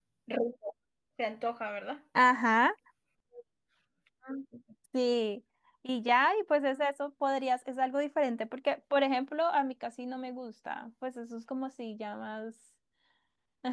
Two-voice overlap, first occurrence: none

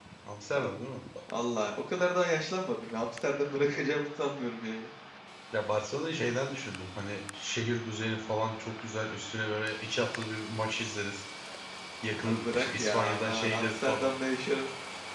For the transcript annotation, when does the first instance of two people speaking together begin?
12.2 s

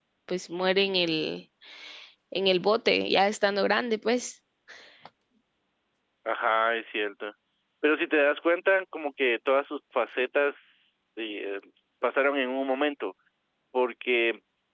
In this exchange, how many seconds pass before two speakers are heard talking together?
none

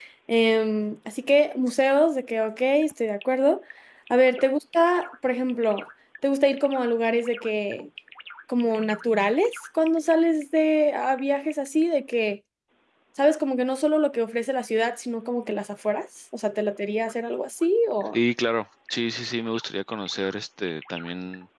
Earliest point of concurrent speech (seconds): none

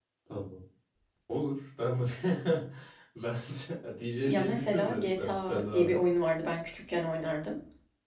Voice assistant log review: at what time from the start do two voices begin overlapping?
4.2 s

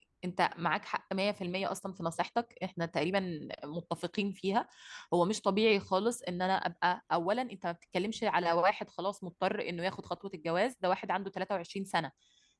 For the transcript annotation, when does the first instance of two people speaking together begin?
none

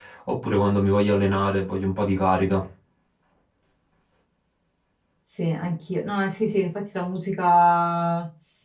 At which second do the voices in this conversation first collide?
none

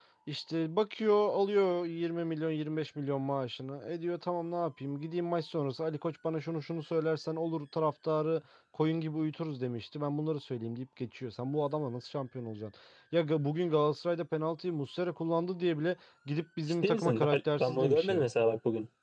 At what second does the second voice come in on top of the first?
16.8 s

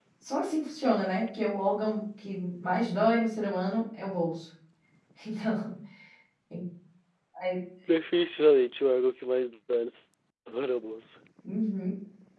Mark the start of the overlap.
none

